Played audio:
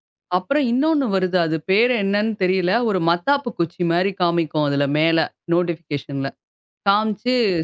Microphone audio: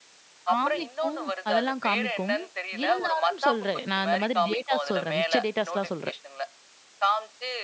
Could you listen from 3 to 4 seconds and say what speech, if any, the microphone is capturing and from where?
both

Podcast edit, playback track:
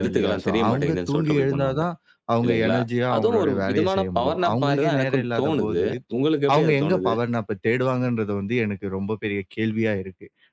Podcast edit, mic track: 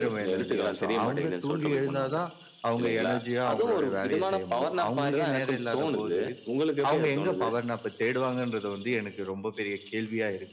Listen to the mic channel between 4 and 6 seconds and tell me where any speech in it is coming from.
echo only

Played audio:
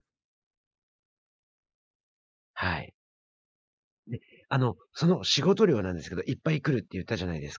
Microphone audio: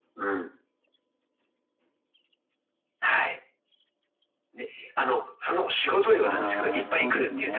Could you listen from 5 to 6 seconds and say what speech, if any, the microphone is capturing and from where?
echo only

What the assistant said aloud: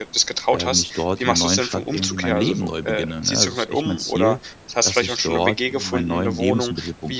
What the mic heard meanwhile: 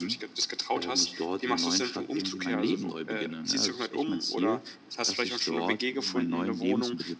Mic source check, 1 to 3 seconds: echo only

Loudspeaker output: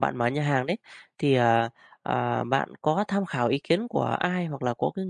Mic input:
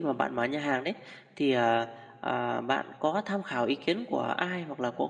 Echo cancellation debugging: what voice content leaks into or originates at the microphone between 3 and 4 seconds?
echo only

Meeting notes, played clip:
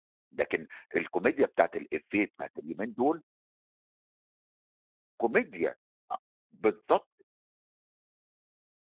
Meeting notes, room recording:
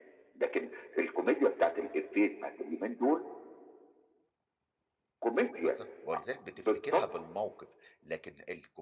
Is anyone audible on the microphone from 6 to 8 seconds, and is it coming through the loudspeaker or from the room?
both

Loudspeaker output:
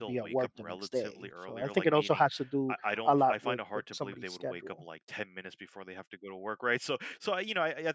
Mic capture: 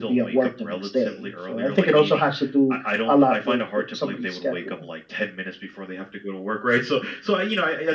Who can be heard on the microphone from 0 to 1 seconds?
echo only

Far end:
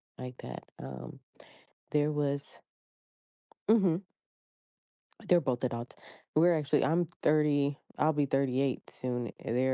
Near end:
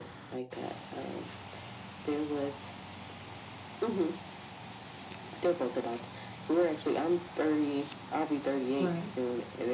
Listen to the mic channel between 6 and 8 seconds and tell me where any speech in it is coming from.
echo only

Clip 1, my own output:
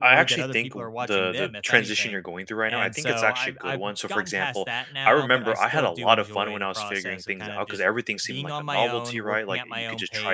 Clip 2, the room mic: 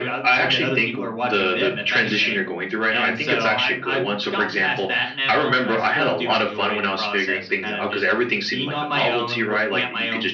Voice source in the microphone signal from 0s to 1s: echo only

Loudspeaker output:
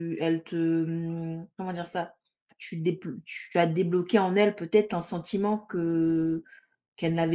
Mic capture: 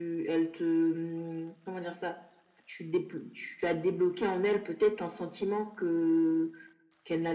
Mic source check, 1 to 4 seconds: echo only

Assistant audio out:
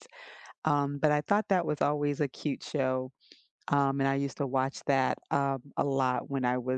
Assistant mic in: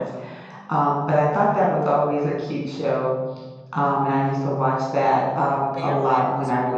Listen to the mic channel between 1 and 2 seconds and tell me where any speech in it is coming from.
echo only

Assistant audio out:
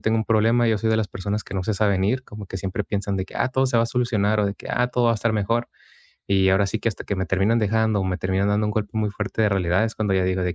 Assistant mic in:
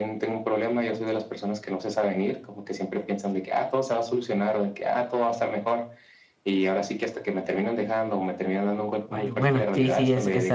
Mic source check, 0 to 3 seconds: echo only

